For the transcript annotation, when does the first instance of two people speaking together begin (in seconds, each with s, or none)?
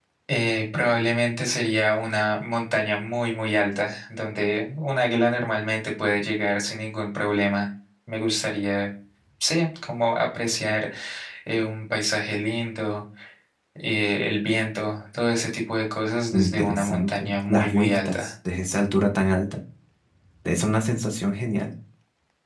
16.3 s